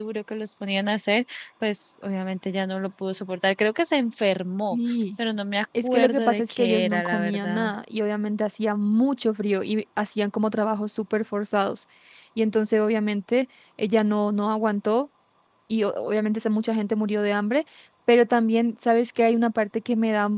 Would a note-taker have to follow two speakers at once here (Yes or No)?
Yes